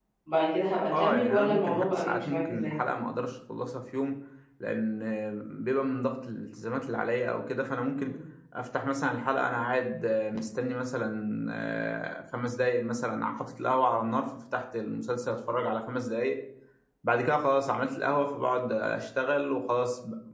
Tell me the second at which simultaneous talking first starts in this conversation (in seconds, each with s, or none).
0.9 s